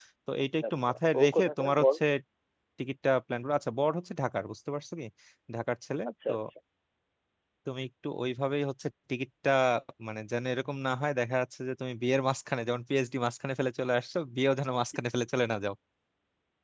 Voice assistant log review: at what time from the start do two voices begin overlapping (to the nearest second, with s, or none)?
1 s